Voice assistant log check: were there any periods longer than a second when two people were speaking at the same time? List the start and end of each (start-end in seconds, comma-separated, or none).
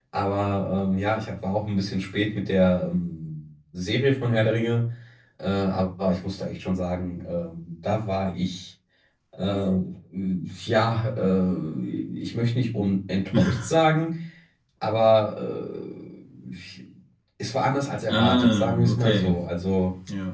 18.1-19.3